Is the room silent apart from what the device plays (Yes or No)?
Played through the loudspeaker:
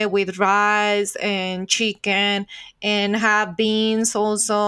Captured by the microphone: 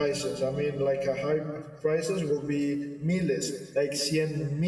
No